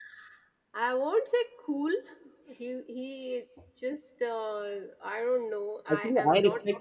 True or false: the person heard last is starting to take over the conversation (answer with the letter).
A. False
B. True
B